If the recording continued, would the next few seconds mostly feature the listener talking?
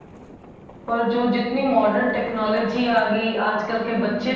No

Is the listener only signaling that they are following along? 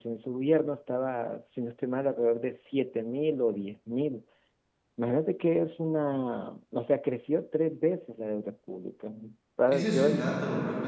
No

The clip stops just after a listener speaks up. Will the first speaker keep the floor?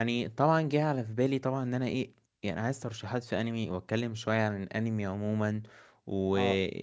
Yes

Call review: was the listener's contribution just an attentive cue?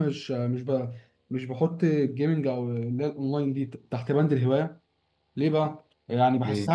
Yes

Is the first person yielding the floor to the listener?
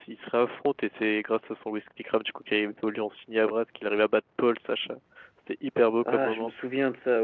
Yes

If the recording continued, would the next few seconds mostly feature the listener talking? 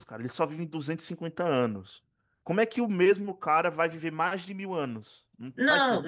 Yes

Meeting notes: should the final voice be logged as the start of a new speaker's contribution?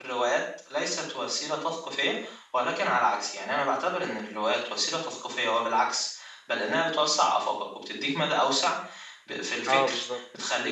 No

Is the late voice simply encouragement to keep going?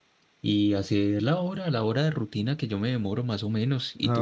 No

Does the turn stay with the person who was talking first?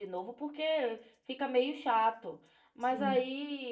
Yes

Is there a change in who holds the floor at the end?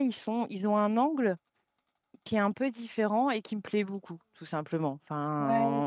No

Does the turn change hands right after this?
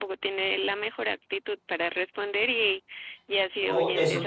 Yes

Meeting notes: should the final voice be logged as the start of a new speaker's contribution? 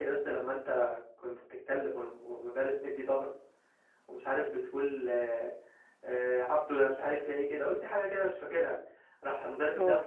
No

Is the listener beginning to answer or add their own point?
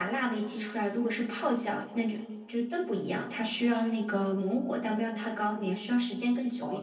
Yes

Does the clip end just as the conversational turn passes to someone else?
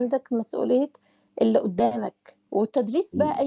No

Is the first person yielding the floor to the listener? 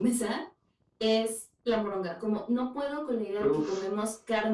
No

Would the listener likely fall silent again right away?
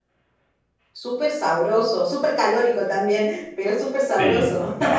No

